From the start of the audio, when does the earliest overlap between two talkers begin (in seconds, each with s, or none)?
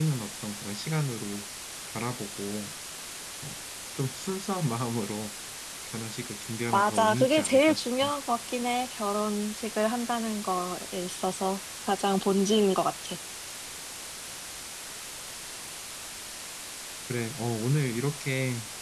6.7 s